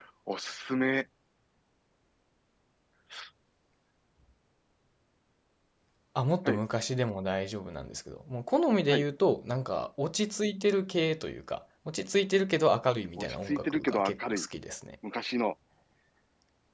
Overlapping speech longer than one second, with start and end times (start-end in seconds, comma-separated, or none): 13.2-14.5